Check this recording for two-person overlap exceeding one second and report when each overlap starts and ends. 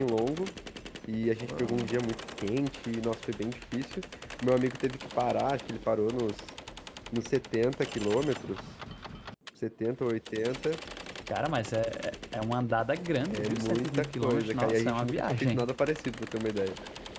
13.3-15.7

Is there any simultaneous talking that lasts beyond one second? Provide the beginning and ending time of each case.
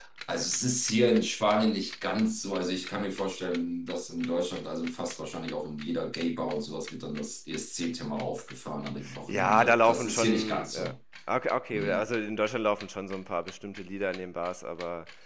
9.3-10.9

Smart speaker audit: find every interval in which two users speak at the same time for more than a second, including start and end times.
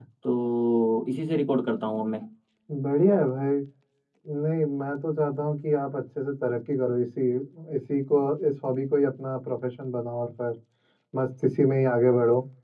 none

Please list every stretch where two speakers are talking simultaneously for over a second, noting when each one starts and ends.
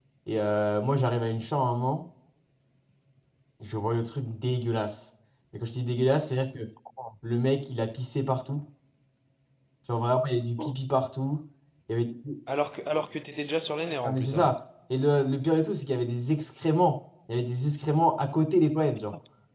none

